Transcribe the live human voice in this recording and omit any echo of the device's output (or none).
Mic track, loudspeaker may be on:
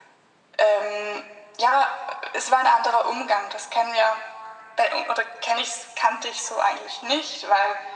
none